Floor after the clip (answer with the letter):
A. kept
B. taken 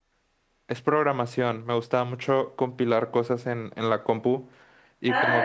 B